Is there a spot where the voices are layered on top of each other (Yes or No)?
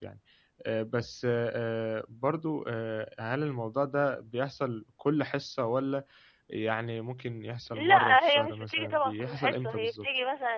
Yes